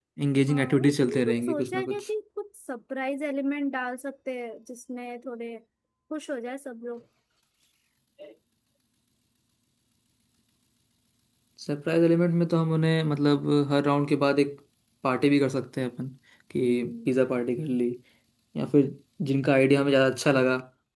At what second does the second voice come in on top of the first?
1 s

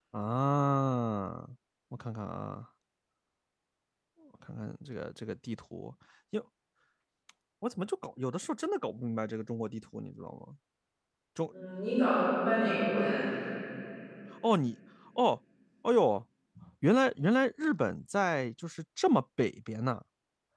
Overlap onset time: none

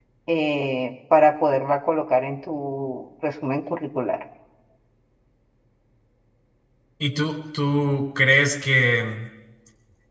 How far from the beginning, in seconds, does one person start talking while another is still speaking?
none

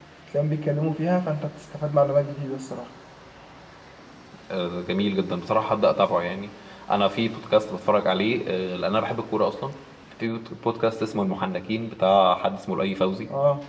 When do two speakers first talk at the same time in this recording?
none

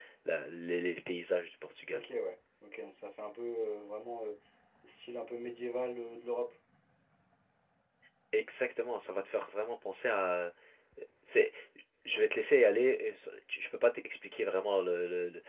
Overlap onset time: none

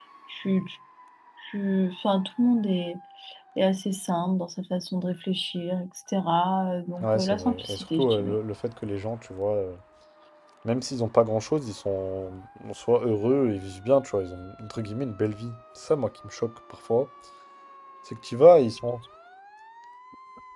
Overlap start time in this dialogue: 7 s

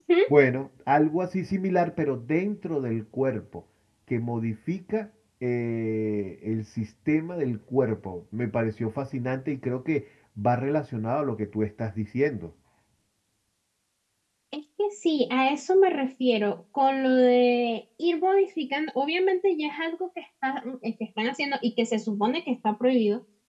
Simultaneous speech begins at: none

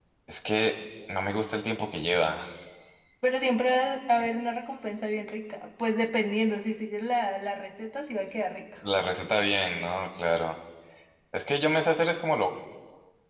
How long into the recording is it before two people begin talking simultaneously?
none

